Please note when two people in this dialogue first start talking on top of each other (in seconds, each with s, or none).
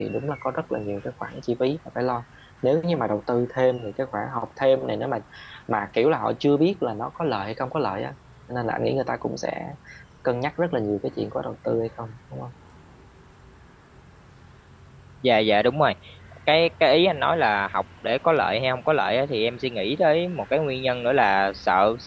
none